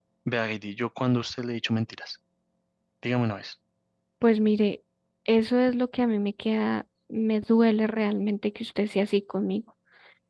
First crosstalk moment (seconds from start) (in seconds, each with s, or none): none